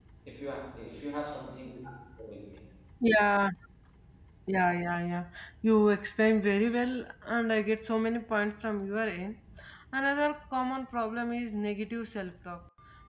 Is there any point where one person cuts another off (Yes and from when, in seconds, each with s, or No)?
No